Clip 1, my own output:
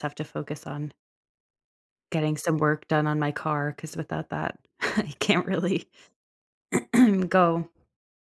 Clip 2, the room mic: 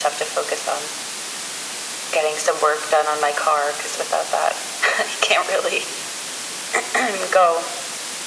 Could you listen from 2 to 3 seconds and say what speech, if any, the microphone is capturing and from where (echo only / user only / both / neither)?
echo only